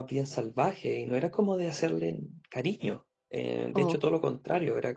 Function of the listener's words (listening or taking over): listening